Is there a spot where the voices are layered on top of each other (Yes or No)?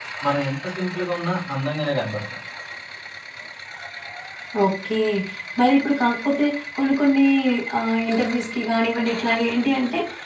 No